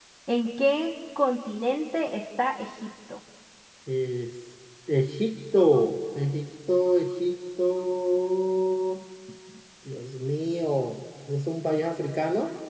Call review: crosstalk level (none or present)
none